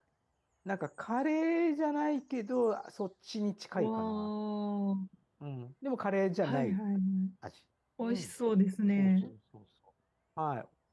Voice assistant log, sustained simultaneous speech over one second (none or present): none